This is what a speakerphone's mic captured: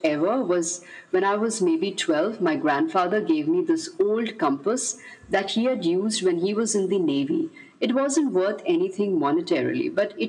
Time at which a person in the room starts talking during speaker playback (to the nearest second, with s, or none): none